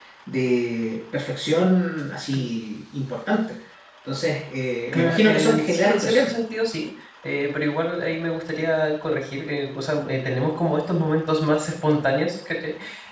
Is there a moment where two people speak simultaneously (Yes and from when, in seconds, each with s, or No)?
Yes, from 4.9 s